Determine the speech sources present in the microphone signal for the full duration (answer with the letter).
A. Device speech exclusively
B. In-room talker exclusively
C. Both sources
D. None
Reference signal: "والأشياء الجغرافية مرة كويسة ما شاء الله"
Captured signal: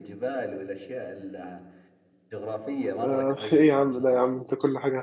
C